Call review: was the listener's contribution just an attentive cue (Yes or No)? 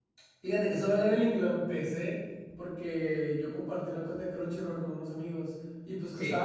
Yes